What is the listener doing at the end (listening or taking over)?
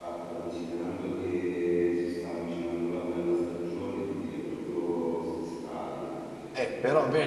taking over